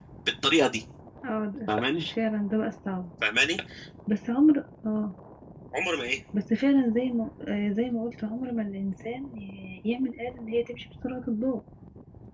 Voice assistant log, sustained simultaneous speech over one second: none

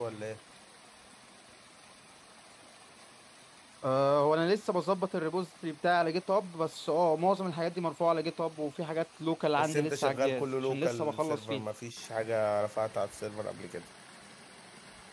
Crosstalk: present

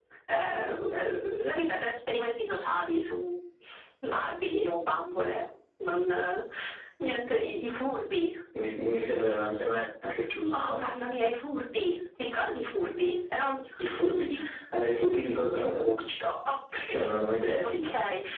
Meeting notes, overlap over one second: none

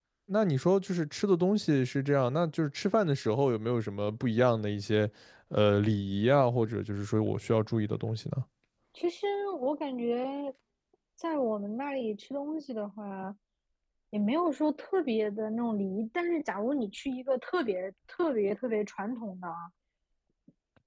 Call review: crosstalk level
none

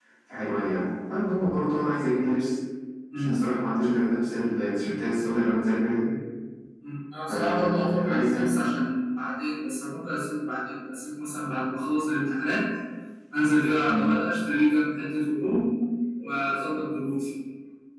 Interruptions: present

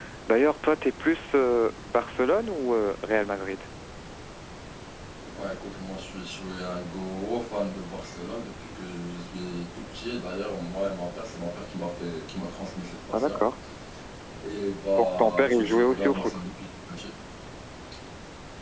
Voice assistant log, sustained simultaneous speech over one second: present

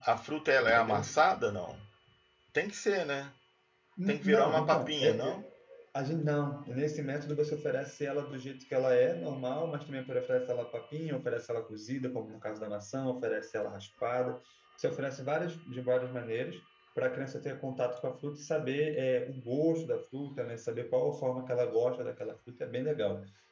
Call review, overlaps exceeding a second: present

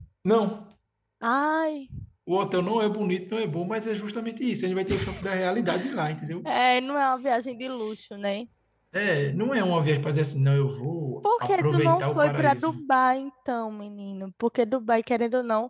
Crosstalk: present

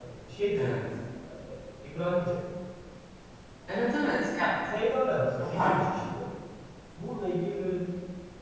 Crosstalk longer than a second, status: none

